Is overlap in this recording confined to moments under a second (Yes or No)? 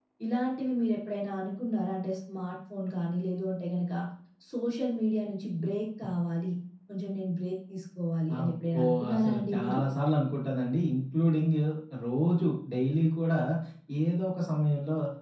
No